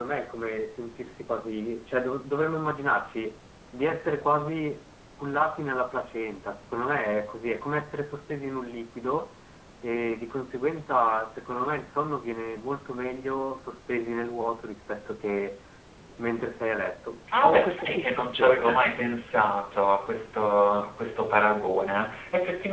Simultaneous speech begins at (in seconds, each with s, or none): 17.3 s